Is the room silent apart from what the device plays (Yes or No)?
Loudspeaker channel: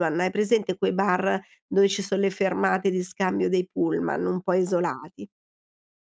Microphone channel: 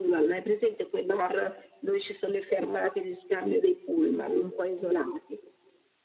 Yes